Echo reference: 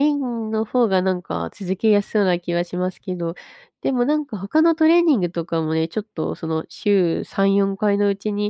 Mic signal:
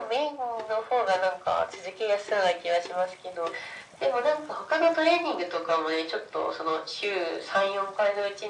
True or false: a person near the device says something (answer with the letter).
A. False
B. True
A